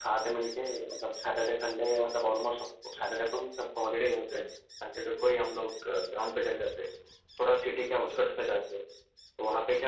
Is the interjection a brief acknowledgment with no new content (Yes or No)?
Yes